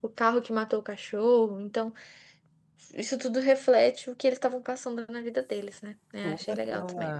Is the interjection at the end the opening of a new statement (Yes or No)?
Yes